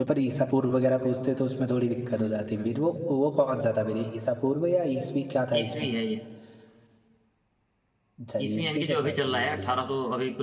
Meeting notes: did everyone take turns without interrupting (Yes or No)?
No